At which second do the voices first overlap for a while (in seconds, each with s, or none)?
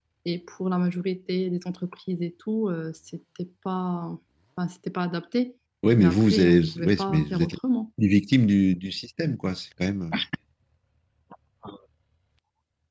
6.0 s